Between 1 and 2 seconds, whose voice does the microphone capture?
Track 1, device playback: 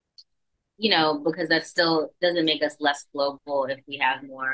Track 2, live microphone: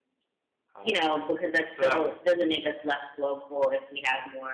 both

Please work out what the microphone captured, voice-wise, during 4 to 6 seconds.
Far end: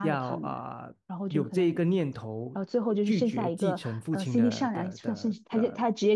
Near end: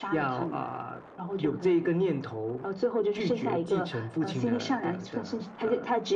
echo only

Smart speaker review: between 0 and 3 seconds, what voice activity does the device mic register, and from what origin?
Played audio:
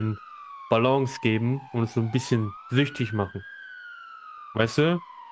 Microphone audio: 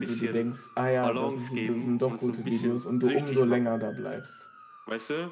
both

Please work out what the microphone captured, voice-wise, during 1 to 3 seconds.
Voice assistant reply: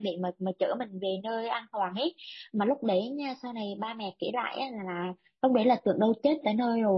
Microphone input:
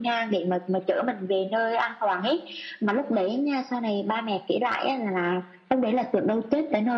echo only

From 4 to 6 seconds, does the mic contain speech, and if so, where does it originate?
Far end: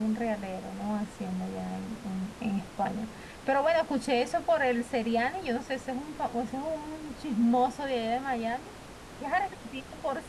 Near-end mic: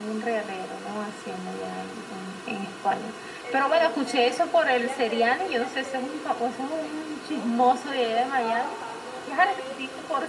both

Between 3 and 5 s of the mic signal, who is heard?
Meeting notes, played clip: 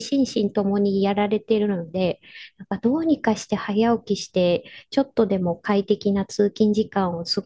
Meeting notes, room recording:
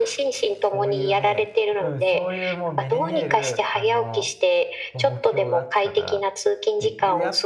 both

